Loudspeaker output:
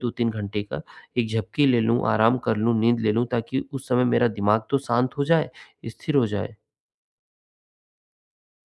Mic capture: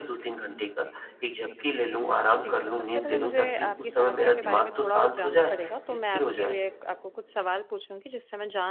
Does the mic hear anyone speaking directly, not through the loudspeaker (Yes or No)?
Yes